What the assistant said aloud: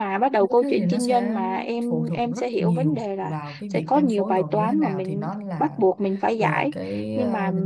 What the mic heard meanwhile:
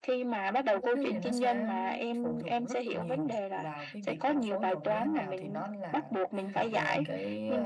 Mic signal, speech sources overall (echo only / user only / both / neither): both